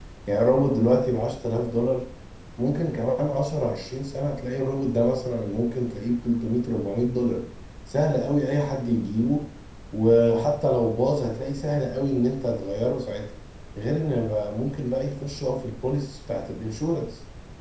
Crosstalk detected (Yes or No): No